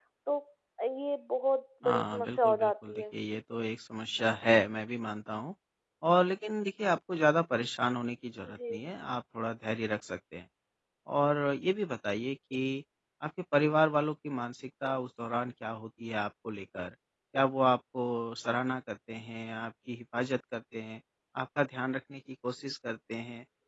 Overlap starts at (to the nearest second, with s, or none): 2 s